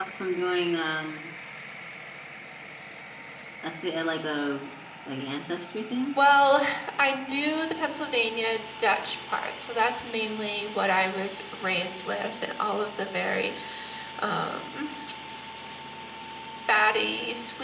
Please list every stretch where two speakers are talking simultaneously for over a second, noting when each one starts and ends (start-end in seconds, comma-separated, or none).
none